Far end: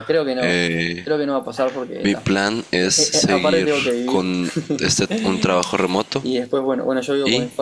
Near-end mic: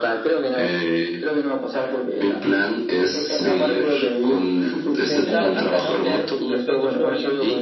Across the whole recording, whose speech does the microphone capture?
both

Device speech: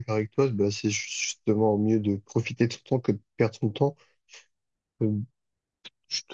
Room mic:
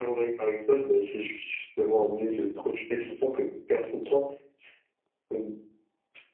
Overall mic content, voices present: both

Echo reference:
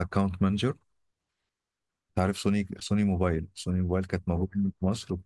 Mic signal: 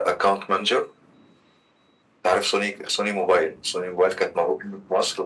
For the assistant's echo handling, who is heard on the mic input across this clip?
echo only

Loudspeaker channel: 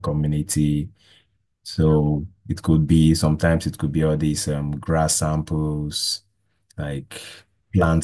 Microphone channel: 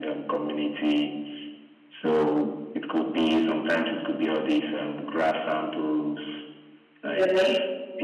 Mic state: both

